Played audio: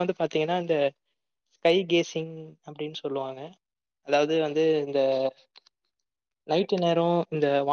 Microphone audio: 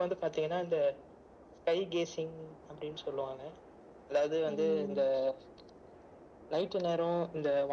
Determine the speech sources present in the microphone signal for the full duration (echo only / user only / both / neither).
both